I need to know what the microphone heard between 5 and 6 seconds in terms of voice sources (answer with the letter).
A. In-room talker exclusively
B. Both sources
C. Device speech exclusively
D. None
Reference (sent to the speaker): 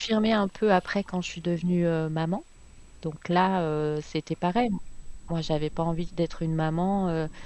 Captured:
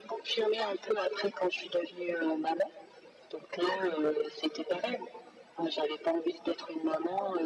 C